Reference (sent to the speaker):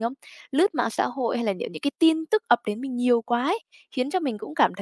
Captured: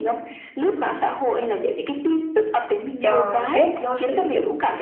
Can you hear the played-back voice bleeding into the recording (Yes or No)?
Yes